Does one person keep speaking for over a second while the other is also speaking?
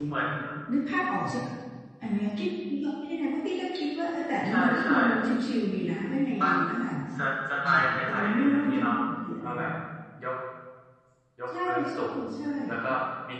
Yes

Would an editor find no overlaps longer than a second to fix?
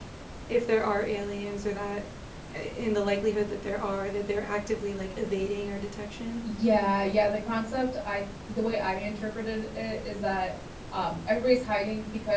Yes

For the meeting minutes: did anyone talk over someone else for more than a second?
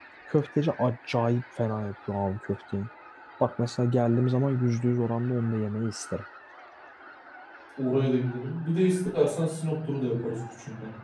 No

